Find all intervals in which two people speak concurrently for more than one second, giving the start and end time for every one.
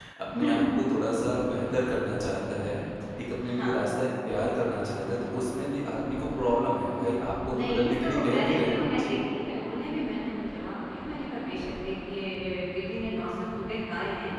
7.5-9.1

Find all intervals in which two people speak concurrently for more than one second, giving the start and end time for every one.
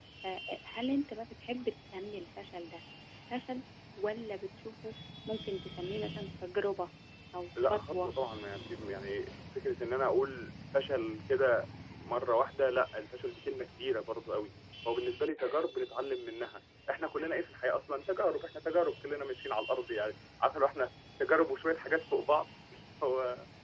none

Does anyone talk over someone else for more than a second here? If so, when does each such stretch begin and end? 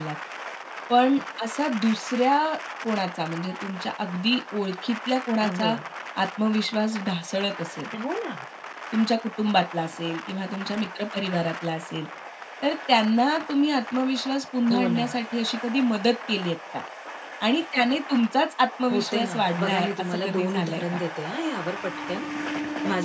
18.9-21.0

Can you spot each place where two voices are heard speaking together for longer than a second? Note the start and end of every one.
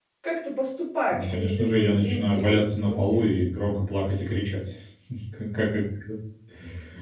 1.1-3.2

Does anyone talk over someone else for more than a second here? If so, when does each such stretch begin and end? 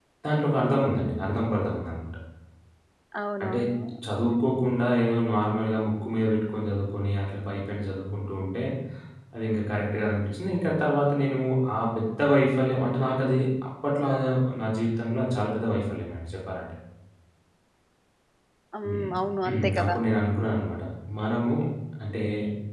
none

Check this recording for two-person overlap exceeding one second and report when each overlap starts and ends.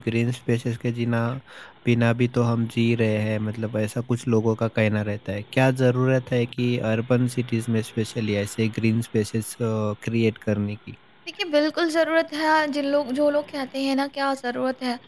none

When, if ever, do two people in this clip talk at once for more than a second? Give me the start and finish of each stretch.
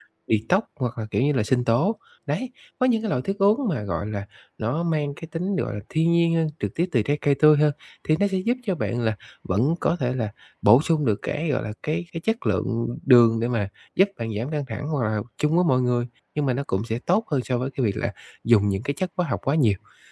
none

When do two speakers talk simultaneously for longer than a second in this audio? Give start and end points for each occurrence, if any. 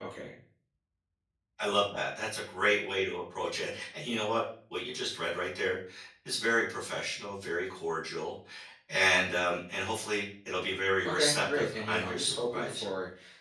11.0-12.9

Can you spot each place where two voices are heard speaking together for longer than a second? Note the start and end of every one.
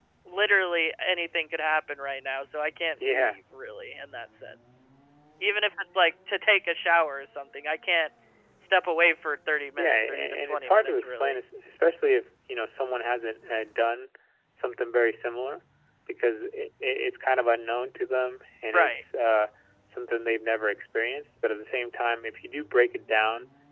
9.8-11.3

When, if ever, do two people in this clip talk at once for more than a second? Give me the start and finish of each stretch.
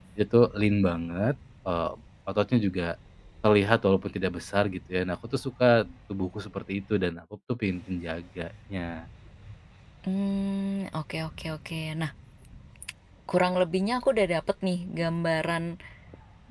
none

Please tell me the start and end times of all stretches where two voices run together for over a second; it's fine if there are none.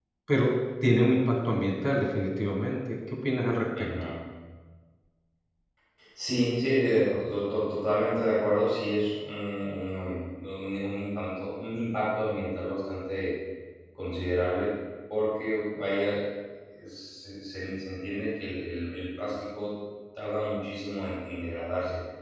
none

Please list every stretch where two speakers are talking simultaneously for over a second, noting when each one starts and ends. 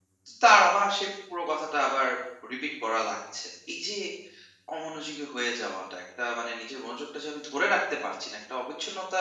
none

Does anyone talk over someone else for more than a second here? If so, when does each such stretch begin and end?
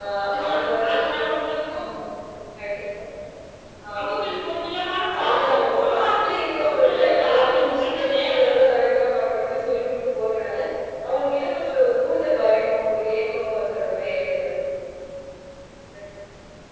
5.2-8.7

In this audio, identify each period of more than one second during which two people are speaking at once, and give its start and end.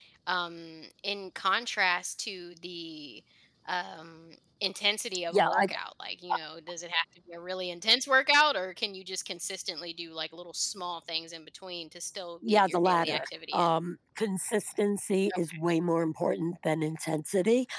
12.5-13.7

